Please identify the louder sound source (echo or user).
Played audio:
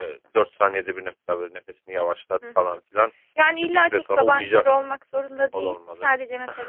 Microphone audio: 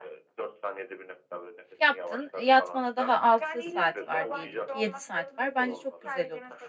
user